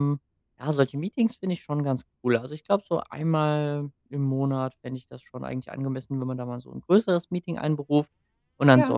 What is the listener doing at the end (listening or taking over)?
listening